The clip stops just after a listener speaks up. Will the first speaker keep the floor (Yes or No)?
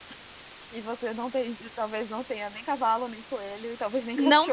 No